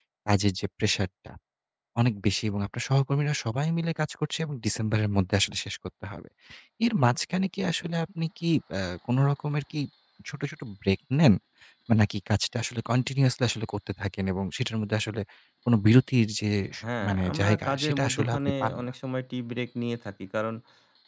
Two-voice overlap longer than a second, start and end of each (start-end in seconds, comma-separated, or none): 17.0-18.9